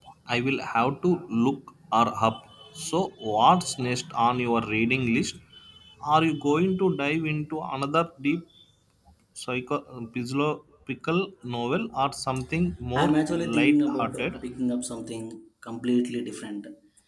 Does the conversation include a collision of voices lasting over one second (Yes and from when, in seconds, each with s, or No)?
Yes, from 13.0 s